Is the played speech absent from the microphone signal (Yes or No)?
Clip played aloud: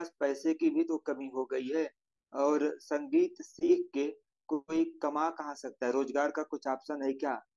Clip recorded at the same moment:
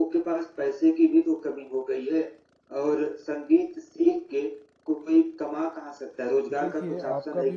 No